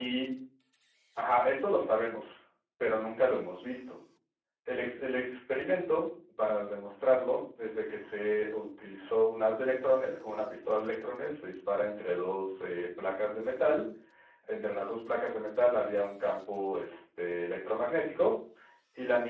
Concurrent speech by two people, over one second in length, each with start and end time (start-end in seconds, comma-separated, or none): none